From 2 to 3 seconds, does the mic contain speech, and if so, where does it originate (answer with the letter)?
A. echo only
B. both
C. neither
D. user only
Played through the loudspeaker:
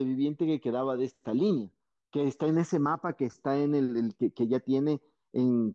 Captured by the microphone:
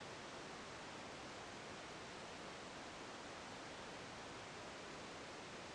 C